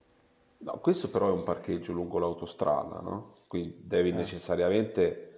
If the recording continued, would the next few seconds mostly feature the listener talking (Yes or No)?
No